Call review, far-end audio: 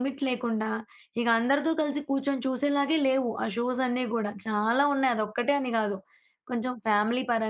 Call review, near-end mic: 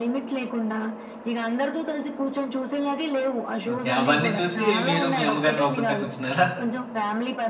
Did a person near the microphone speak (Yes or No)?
Yes